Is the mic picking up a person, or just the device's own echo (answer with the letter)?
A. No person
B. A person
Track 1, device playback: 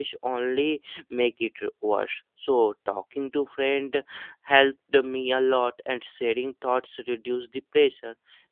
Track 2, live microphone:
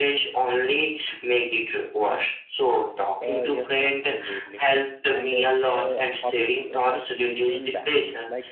B